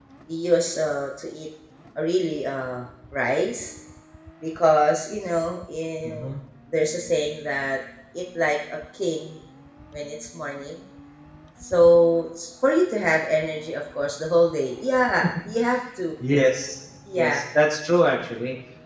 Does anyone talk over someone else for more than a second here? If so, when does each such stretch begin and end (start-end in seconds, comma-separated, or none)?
none